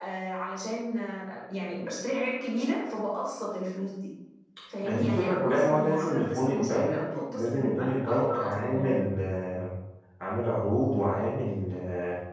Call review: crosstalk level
present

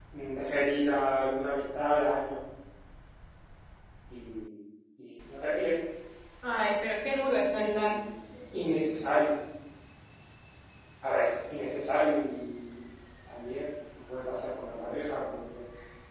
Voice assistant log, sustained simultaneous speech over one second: none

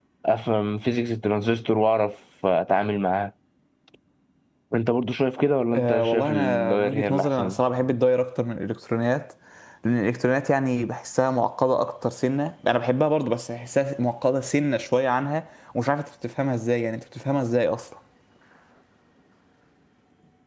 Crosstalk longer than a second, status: present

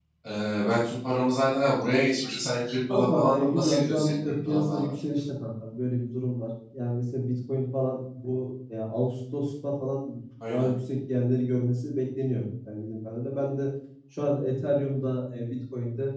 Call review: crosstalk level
present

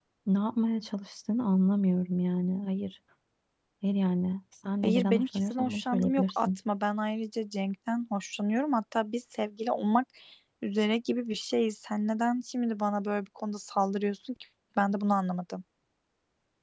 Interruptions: present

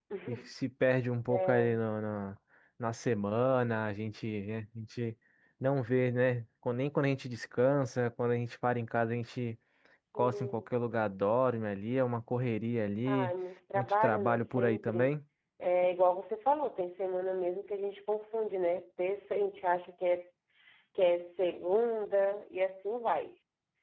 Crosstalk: present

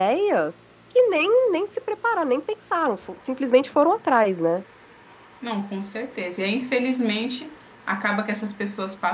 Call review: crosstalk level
none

